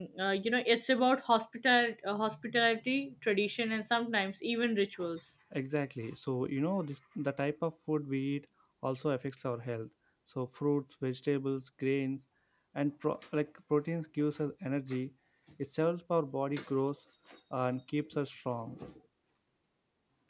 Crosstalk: none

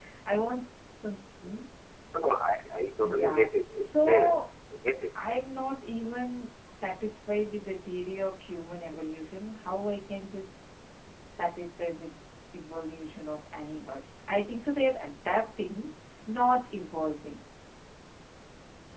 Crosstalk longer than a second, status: present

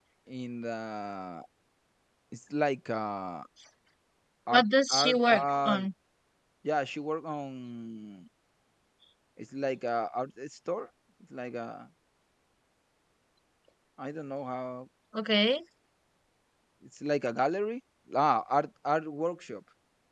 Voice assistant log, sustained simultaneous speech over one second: present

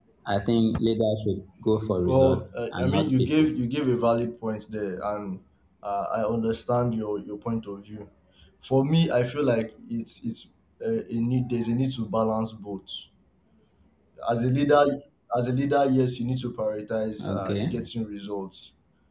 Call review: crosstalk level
present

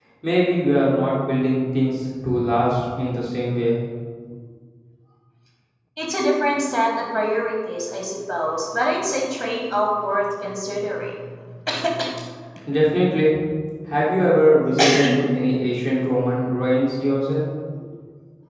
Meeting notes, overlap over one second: none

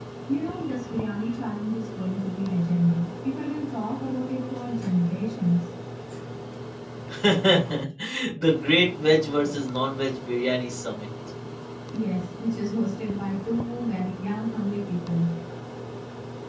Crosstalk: none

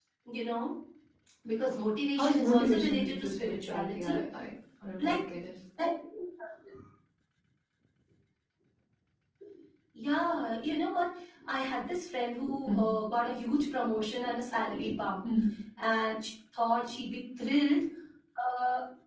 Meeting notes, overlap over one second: present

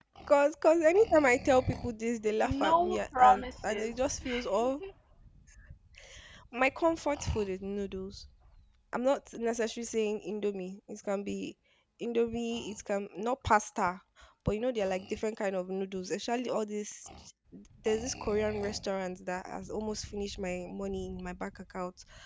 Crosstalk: present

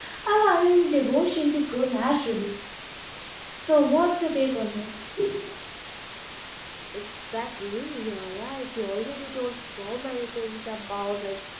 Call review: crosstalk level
none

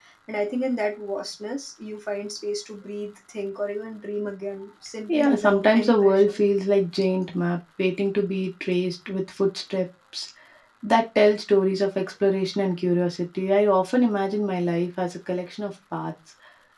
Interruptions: present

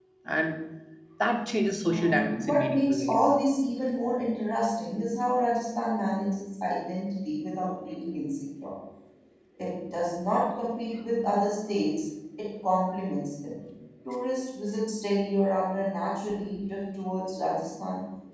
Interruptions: present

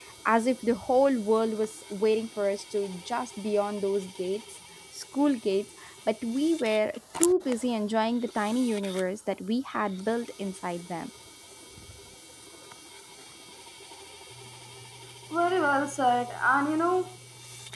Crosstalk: none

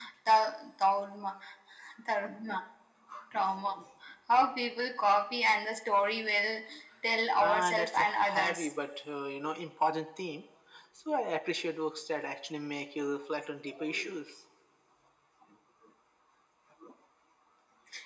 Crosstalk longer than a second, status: present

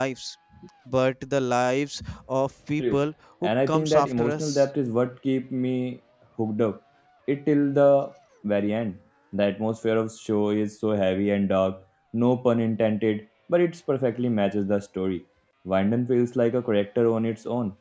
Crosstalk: present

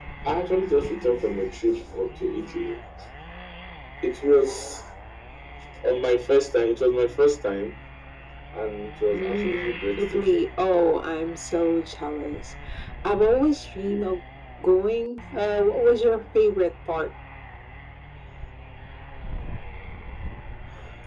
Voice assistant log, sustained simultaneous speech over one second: present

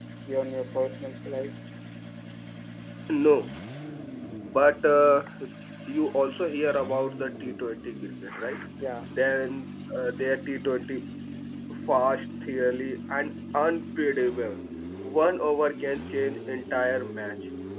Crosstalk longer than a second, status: none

